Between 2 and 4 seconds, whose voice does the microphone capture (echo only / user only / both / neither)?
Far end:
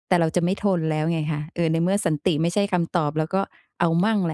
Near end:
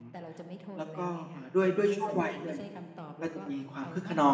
both